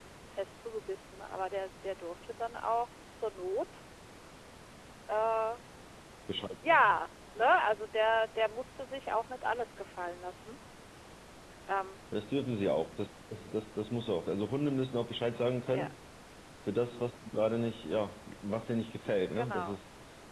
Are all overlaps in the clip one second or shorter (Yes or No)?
Yes